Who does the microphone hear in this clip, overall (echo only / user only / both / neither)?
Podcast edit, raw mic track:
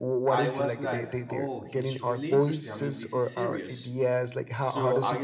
both